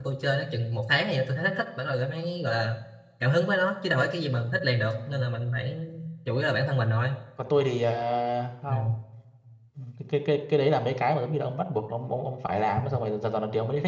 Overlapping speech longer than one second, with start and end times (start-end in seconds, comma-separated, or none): none